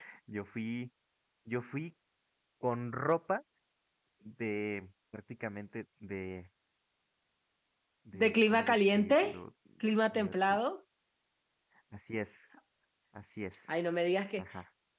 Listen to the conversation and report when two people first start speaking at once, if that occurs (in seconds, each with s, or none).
8.1 s